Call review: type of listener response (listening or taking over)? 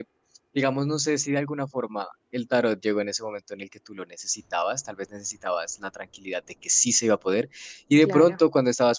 listening